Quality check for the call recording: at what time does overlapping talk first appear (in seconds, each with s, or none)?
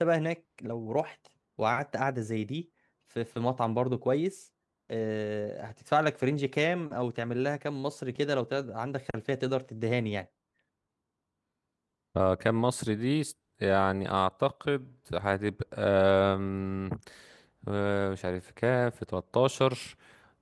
none